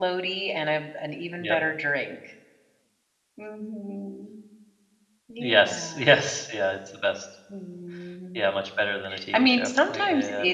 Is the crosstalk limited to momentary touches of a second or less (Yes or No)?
No